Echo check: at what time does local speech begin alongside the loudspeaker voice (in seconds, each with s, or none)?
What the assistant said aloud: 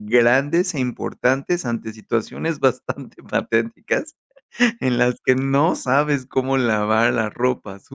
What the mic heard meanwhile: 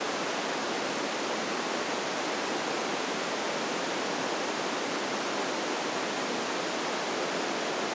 none